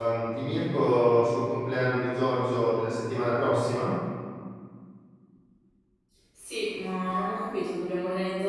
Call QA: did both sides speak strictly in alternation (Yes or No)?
Yes